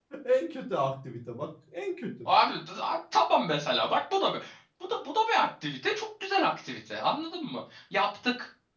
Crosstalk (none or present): none